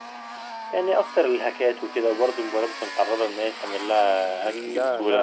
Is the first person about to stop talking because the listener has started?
Yes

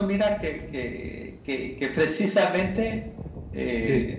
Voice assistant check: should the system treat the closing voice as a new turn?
No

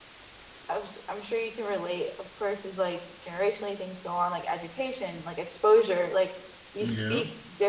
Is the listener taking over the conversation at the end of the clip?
No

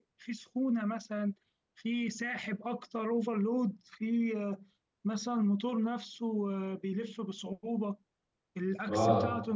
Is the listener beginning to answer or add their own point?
Yes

